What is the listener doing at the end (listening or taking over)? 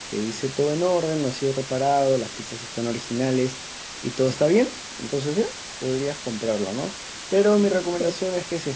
listening